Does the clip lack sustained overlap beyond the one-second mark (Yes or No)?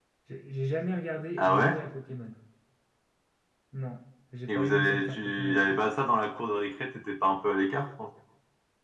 No